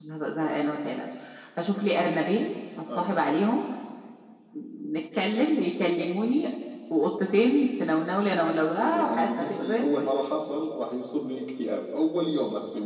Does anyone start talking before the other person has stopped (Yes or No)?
Yes